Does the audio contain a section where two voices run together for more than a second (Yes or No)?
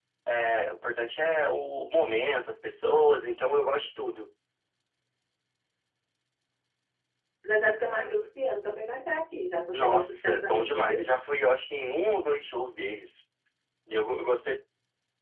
Yes